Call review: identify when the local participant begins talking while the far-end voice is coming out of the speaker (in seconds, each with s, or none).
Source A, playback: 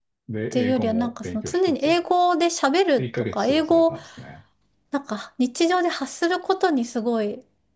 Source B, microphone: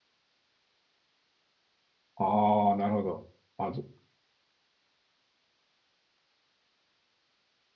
2.2 s